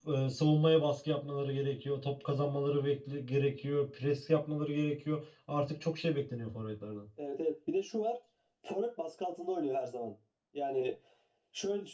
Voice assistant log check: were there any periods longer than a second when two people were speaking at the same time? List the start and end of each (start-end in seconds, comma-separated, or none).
none